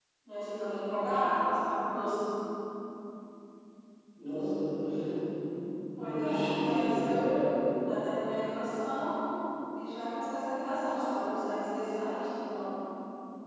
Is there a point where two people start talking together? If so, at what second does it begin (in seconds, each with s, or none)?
6.0 s